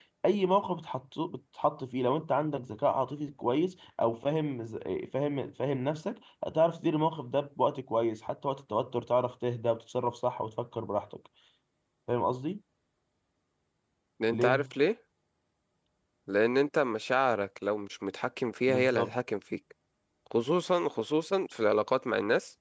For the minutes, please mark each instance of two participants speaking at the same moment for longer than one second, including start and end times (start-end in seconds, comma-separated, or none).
none